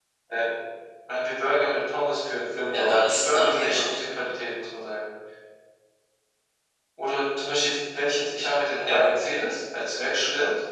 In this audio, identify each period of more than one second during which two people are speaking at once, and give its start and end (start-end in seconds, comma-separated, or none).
2.7-4.0